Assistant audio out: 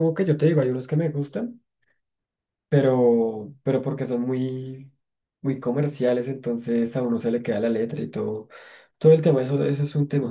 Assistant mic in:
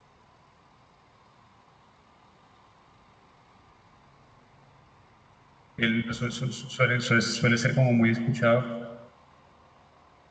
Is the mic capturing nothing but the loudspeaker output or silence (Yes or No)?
No